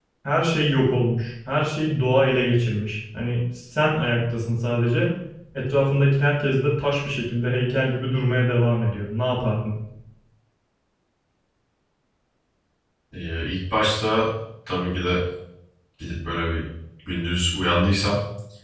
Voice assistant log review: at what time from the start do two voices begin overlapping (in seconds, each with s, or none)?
none